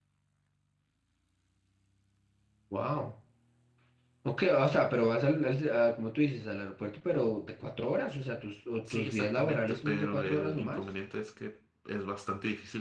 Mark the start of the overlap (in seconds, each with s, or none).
8.8 s